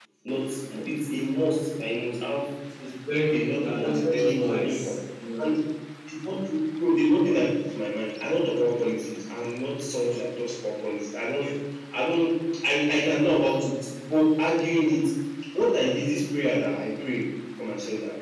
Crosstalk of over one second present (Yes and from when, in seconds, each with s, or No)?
Yes, from 3.3 s